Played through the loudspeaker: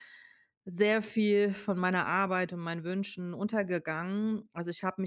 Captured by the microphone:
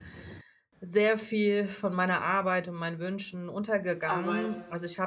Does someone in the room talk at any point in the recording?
Yes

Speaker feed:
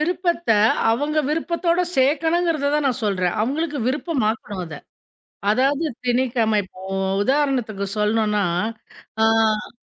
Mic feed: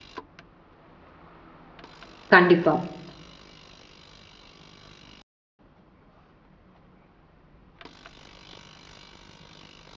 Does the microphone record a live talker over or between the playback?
Yes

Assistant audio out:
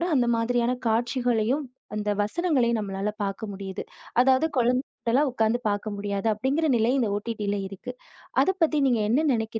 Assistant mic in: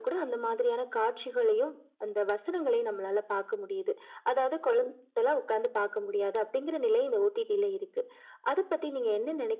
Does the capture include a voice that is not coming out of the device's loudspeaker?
No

